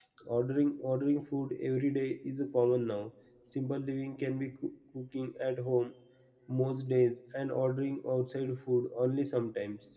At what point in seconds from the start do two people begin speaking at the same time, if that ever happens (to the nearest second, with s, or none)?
none